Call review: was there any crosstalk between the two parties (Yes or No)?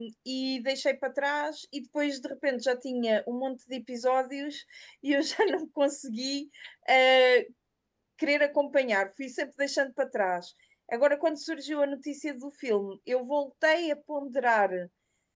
No